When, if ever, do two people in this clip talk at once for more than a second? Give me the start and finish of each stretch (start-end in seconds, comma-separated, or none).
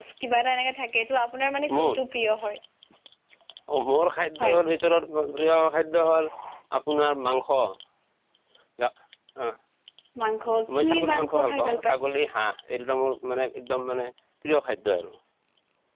10.7-12.0